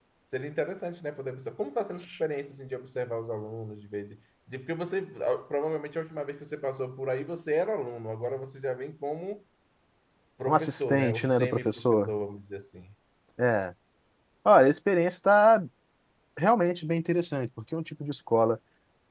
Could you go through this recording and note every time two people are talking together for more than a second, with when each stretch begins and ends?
10.4-12.1

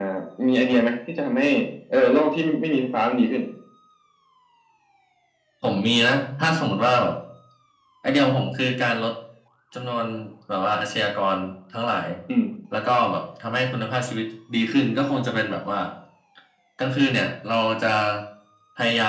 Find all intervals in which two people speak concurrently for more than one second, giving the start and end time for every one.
none

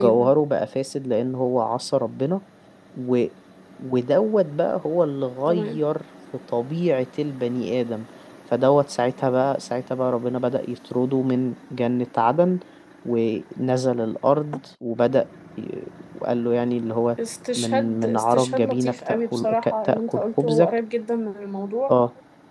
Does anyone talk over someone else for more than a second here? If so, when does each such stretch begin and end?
17.6-20.7

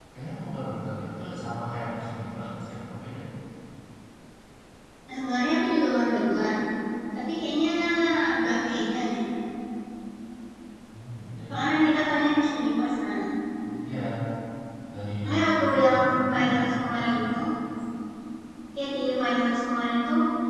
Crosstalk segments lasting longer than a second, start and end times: 15.2-17.4

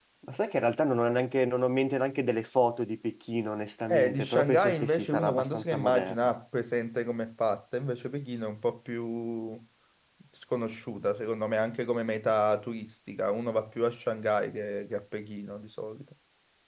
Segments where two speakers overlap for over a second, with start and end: 3.9-6.2

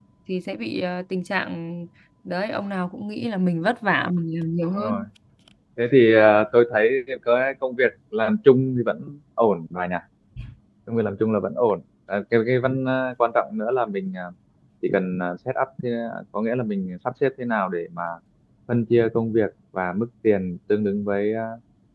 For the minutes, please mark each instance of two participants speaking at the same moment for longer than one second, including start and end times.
none

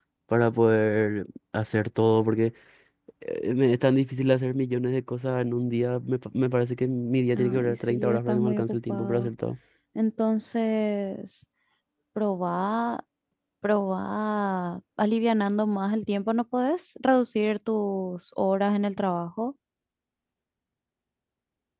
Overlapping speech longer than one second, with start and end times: 7.4-9.3

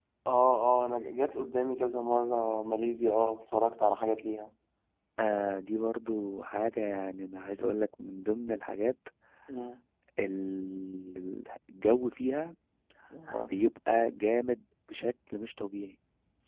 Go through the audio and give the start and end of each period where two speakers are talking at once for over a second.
none

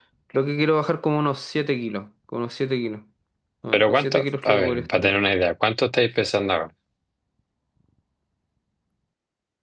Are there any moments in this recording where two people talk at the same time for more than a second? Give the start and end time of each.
3.7-5.2

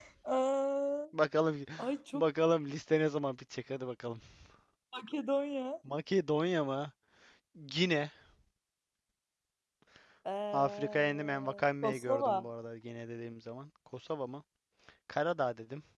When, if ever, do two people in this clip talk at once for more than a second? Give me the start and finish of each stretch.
10.5-12.4

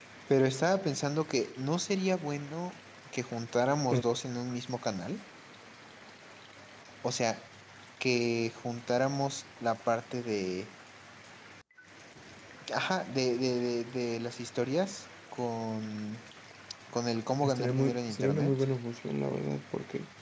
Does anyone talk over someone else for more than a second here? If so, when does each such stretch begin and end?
17.4-18.6

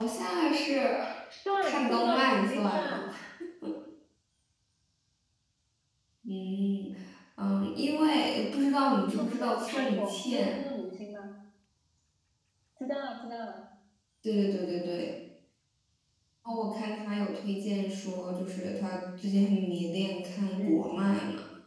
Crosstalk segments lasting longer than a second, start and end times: 1.6-3.1, 9.1-10.6

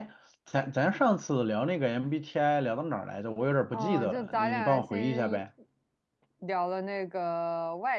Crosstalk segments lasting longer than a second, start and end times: 3.7-5.4

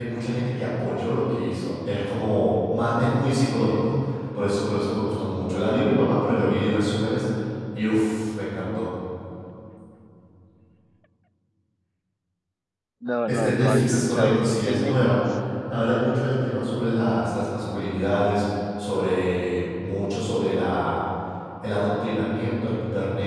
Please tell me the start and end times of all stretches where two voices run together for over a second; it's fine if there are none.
13.3-14.9

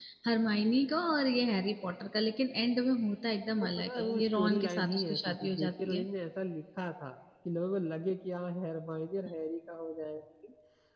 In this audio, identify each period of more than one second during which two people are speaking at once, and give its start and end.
3.6-6.1

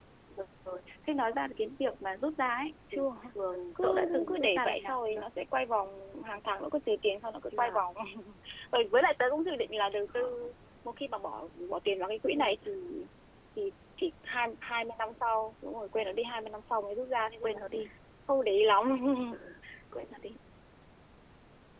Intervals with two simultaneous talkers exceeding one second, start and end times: 3.8-5.2

